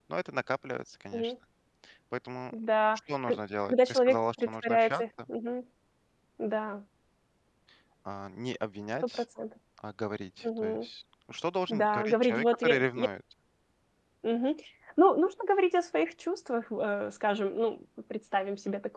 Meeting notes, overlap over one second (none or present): present